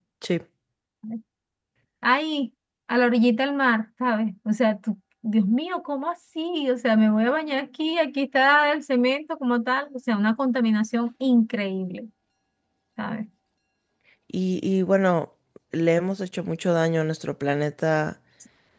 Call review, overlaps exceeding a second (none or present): none